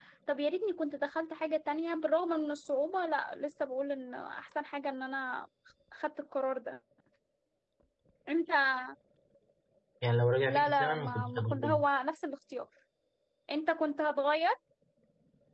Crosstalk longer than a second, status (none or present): present